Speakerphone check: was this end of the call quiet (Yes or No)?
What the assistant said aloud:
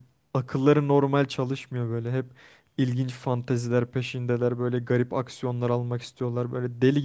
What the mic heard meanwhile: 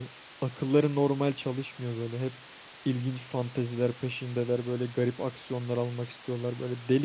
Yes